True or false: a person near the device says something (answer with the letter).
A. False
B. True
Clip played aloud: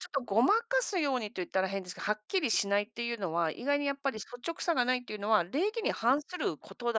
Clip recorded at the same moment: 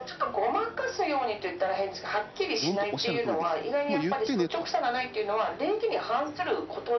B